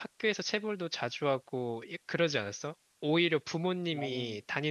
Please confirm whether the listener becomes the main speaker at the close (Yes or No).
No